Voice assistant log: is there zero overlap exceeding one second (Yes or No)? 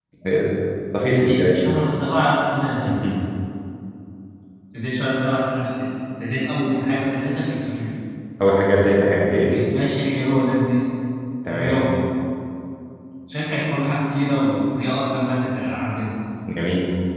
Yes